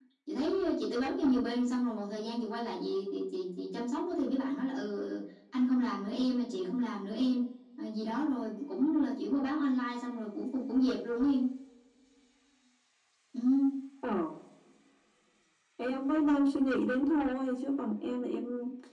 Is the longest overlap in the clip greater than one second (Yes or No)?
No